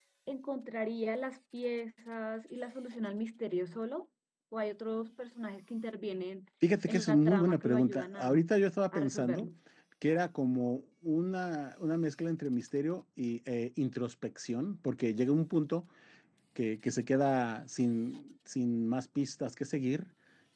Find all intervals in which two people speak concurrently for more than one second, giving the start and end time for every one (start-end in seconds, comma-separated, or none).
6.9-8.5